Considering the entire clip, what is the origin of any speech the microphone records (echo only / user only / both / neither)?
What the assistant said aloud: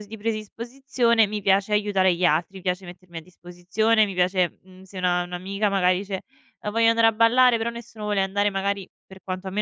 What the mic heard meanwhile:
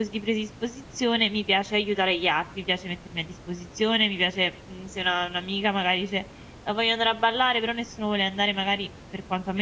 echo only